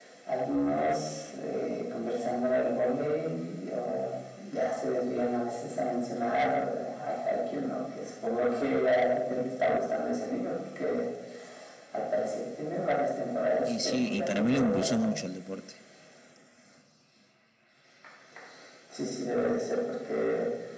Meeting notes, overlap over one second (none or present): present